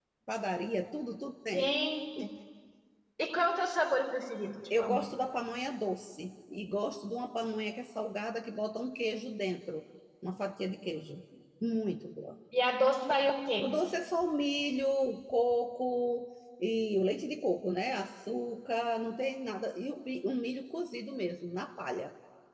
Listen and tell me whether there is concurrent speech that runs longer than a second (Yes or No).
No